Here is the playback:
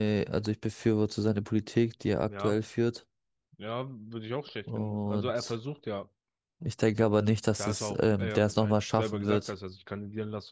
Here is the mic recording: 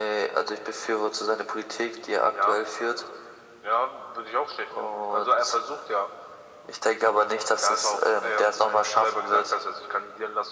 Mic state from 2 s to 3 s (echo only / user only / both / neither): echo only